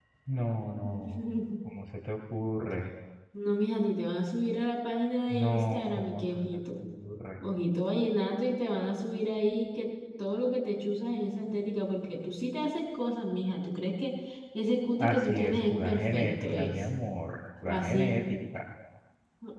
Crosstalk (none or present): present